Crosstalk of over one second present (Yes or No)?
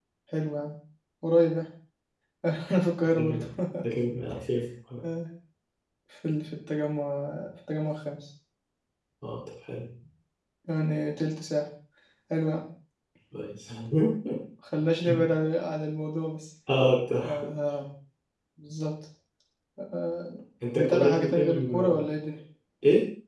Yes